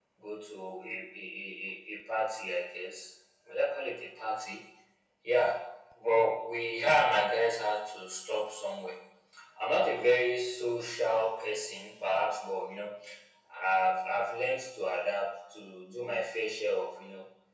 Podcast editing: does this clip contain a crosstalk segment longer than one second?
No

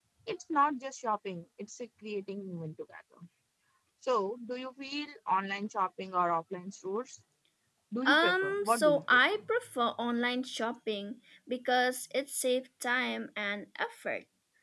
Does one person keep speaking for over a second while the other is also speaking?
Yes, from 8.1 s

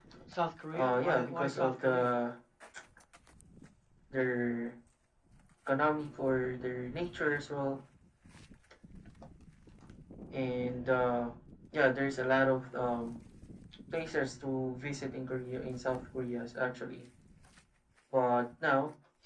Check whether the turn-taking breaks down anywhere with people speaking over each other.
Yes, from 0.7 s

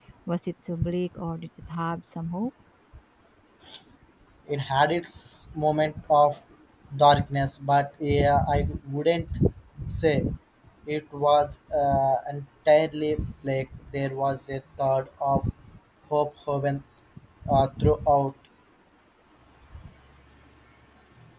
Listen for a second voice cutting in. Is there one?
No

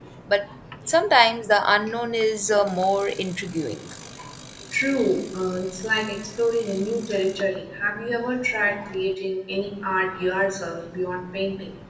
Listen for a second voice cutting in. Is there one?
No

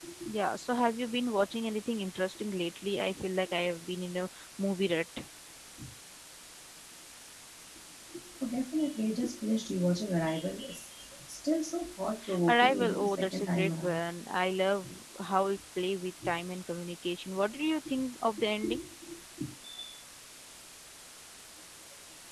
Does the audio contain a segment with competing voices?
Yes, from 12.2 s

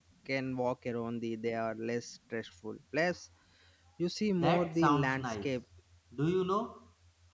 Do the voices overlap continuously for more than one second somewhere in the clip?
Yes, from 4.4 s

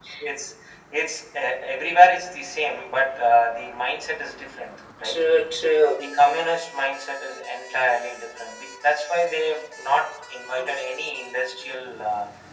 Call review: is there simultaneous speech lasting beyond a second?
No

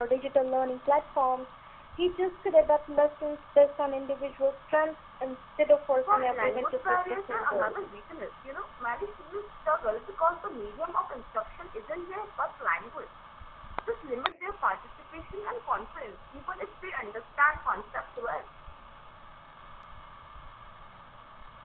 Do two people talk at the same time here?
Yes, from 6.1 s

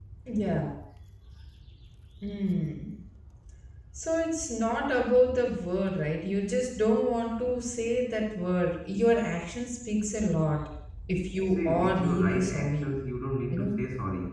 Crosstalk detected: Yes, from 11.6 s

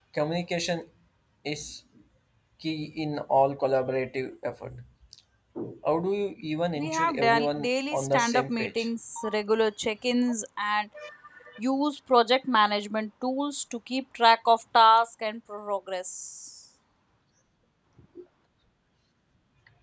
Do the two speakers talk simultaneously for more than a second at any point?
Yes, from 6.8 s

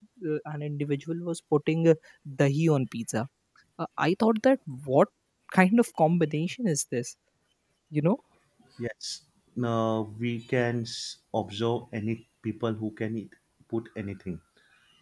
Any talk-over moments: No

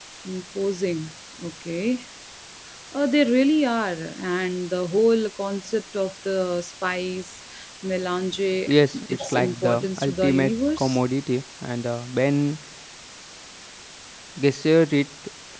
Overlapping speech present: Yes, from 8.7 s

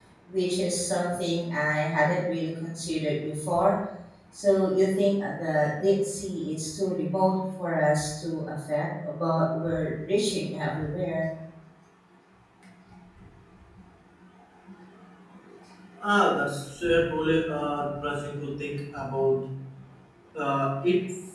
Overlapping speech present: No

